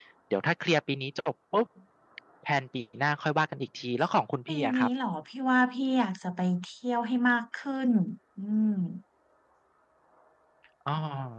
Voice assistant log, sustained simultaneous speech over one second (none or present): none